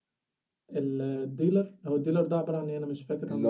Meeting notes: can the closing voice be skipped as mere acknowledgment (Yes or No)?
No